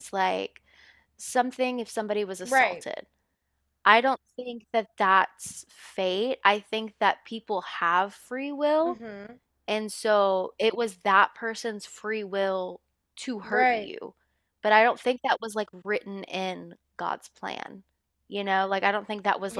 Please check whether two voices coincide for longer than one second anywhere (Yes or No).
No